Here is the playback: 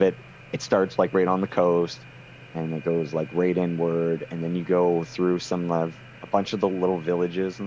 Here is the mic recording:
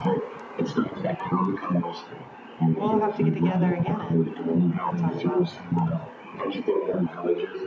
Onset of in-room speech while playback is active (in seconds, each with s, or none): 2.7 s